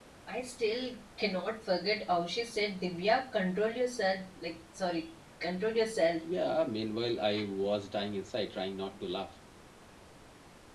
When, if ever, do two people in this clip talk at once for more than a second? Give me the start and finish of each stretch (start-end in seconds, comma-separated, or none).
none